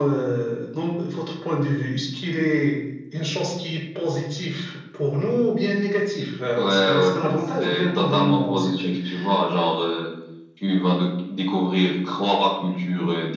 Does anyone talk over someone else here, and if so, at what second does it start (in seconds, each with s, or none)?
6.6 s